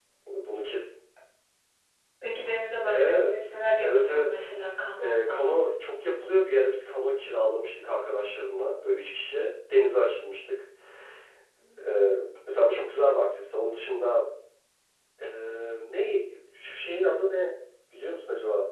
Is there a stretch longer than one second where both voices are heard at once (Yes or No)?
Yes